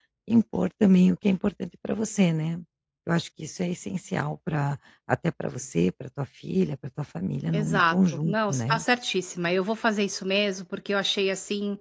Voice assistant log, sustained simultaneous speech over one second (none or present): present